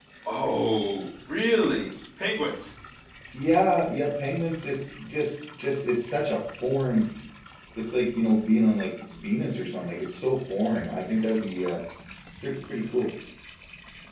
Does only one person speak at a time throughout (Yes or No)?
Yes